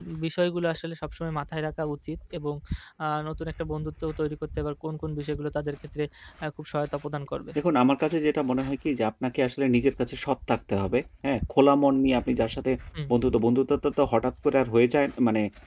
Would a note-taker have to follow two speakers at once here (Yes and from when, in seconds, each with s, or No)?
No